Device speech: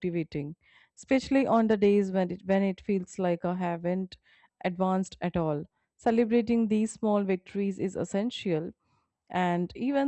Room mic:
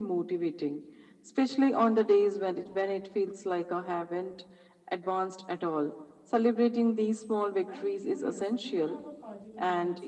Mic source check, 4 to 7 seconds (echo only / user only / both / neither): echo only